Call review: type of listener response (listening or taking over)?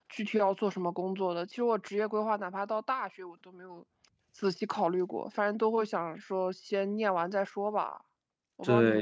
taking over